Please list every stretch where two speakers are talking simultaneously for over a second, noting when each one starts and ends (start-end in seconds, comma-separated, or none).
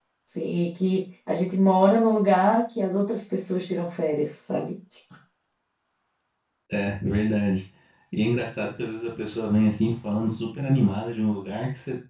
none